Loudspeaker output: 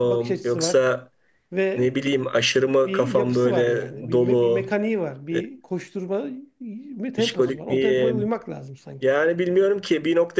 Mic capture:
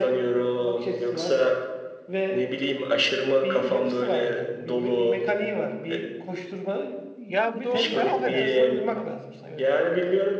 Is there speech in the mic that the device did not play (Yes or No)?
Yes